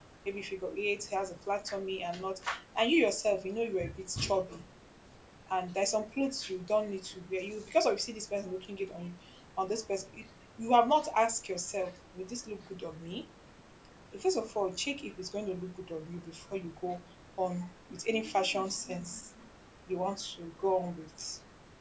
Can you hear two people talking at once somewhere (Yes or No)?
No